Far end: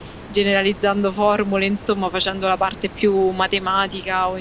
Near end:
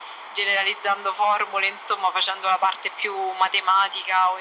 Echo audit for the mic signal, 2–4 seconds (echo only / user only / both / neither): echo only